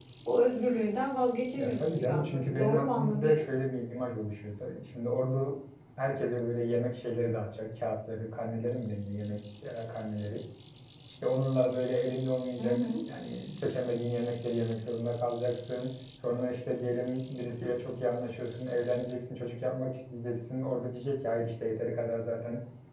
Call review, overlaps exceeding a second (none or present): present